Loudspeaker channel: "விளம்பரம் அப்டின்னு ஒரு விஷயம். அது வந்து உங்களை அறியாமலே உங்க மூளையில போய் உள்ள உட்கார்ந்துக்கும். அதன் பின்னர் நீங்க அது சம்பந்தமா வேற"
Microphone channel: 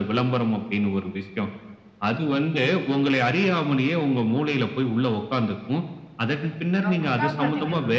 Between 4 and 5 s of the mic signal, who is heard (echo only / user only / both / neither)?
echo only